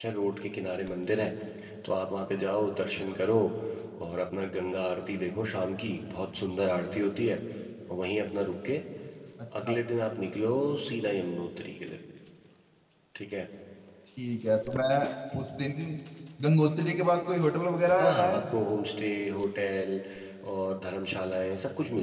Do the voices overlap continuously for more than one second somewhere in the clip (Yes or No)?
No